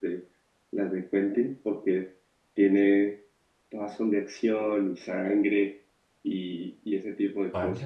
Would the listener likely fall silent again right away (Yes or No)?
No